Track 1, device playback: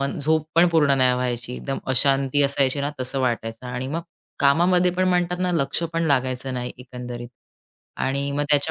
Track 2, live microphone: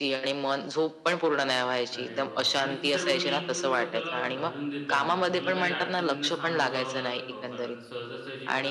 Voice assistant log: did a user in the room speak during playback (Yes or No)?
Yes